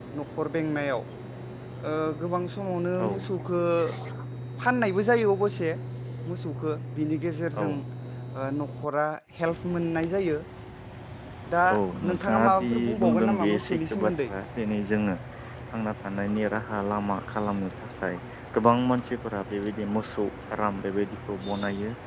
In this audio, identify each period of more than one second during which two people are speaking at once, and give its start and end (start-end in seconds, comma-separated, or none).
12.1-14.3